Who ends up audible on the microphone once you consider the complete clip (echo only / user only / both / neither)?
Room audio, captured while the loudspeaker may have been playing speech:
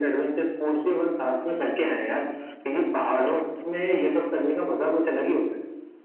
echo only